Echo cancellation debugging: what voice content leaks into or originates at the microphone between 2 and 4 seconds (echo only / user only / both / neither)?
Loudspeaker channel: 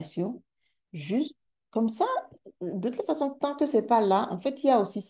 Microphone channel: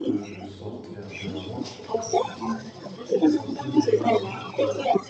both